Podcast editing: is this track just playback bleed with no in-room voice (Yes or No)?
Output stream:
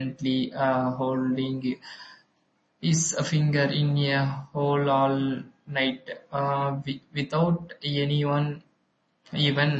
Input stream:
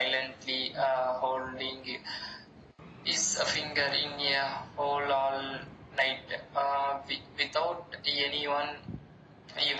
Yes